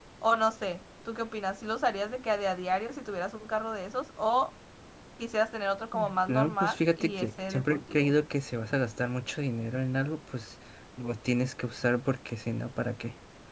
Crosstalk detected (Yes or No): Yes